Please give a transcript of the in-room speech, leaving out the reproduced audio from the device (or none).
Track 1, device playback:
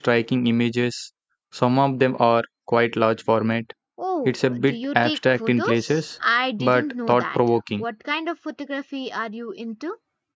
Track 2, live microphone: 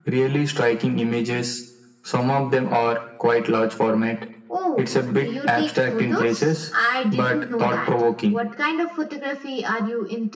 none